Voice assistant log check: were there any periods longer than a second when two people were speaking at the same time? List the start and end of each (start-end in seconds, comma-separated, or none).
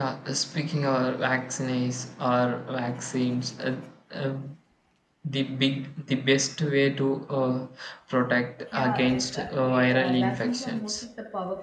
8.7-10.9